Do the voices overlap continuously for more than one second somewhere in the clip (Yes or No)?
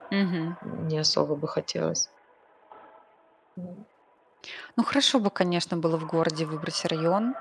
No